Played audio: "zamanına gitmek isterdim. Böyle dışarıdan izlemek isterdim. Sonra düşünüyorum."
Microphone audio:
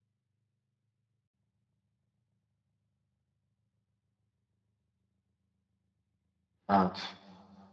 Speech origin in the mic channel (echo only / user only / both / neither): user only